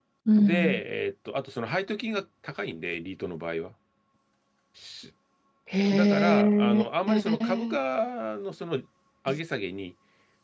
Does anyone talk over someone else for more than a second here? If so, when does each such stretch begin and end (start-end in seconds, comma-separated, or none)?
5.9-7.6